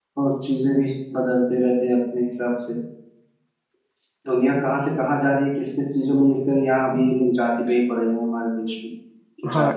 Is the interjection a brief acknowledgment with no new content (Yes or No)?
No